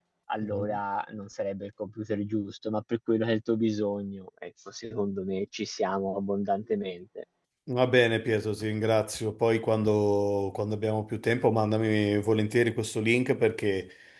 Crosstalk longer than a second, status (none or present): none